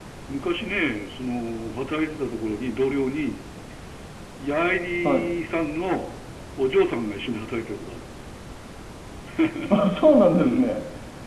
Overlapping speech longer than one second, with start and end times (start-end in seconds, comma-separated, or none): none